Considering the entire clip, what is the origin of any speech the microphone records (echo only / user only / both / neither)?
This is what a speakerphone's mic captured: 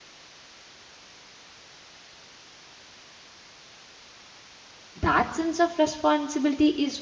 user only